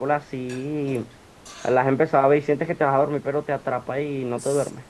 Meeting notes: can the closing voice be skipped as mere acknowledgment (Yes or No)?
No